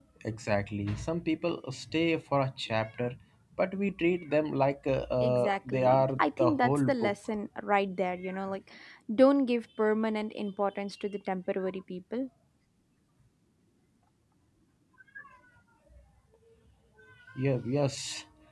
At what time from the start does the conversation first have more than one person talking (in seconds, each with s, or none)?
5.2 s